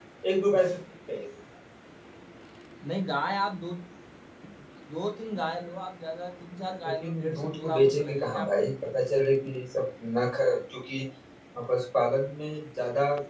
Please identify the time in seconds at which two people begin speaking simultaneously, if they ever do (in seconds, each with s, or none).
6.8 s